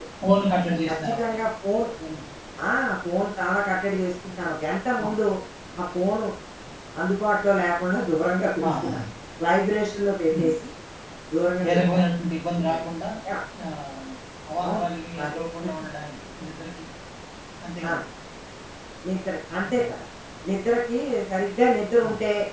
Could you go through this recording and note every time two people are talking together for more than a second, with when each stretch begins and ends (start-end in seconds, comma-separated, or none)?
none